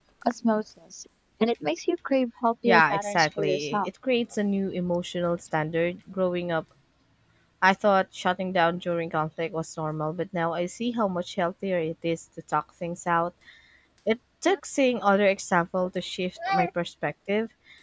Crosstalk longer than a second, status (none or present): present